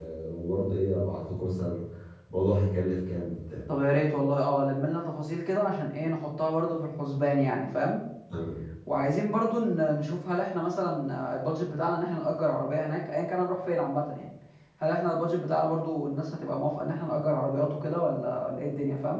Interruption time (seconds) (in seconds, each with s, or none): none